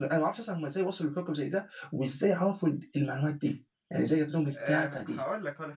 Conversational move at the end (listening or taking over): taking over